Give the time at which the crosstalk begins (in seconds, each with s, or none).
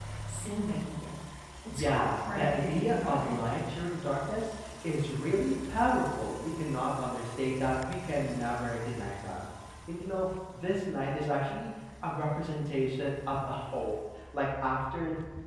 1.7 s